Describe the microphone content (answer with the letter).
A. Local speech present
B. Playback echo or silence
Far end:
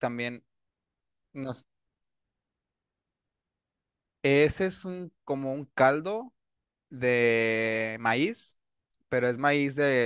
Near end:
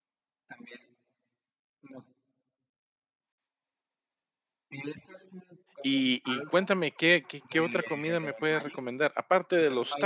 A